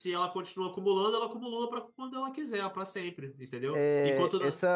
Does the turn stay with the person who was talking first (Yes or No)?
No